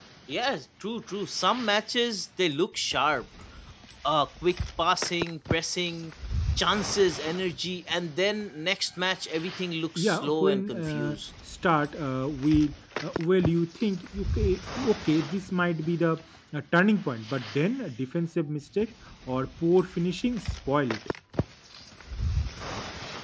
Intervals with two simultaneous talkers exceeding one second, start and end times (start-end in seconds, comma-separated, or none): 10.0-11.2